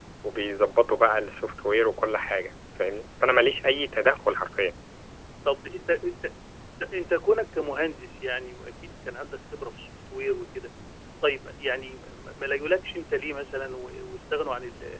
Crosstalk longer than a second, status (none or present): none